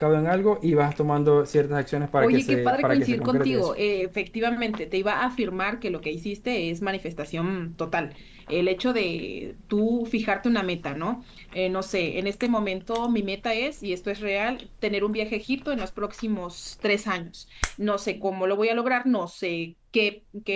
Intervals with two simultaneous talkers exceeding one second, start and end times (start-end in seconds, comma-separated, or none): 2.2-3.7